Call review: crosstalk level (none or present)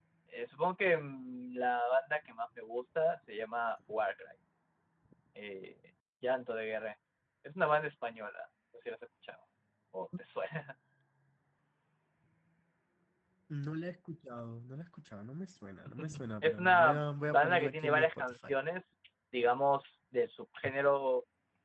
present